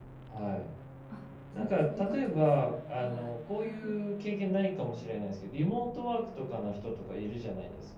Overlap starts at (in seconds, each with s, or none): 1.6 s